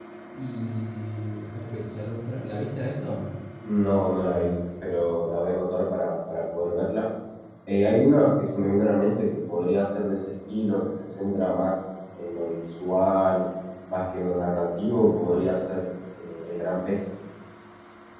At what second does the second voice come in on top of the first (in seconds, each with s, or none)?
none